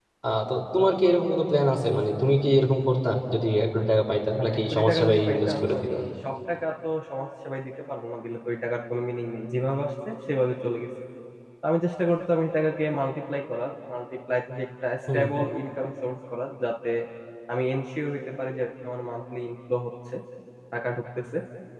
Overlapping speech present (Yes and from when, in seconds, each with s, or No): Yes, from 4.4 s